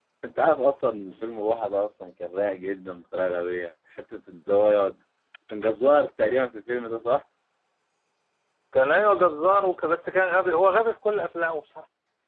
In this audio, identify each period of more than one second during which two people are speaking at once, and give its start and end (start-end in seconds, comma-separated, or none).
none